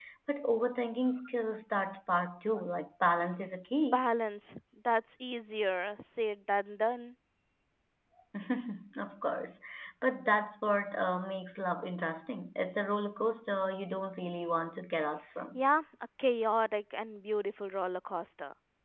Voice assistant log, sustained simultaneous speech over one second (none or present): none